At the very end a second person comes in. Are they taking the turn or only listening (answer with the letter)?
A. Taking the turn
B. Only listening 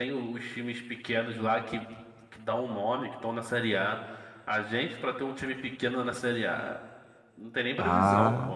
A